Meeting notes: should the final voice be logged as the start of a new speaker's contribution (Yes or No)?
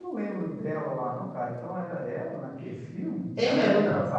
No